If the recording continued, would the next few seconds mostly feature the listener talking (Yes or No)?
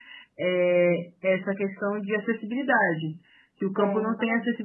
No